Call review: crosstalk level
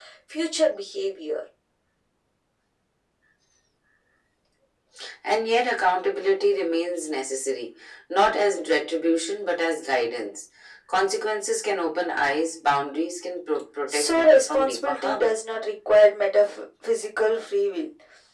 present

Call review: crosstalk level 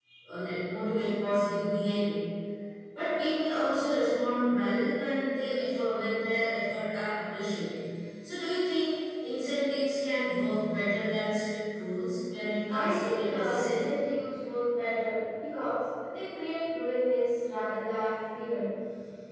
present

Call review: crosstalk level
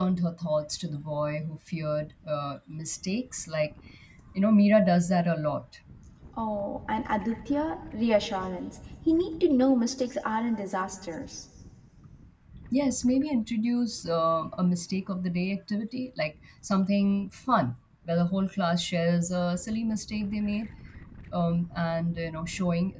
none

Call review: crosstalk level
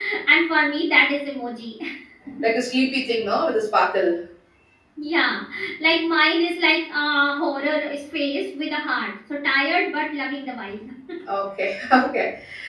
none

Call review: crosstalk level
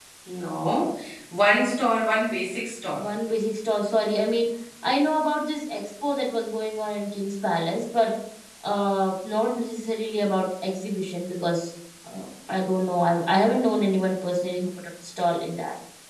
none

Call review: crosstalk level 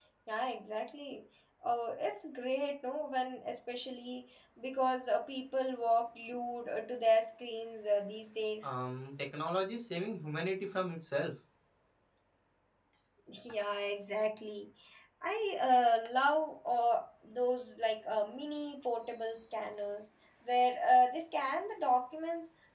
none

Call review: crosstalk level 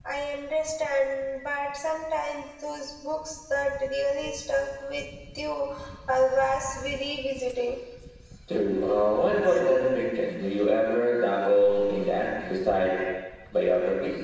none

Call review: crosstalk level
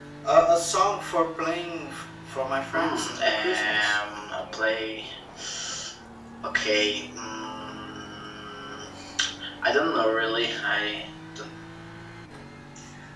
present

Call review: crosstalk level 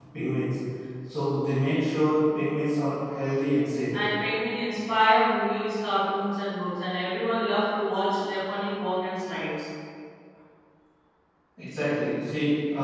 none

